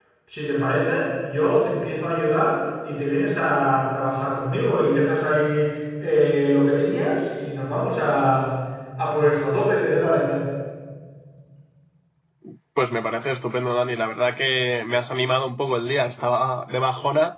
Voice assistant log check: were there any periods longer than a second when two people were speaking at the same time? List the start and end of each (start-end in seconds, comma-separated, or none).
none